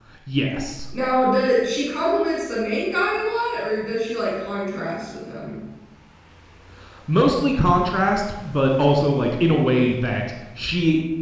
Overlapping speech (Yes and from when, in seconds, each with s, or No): No